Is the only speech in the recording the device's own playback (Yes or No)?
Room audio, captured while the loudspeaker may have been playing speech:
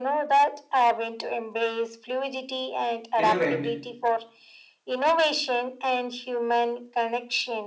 No